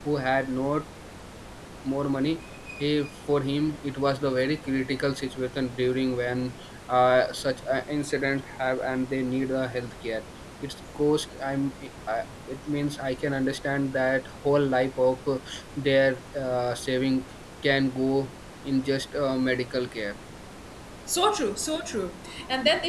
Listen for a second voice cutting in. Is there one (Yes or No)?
No